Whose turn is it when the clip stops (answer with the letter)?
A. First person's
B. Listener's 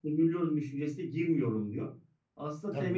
B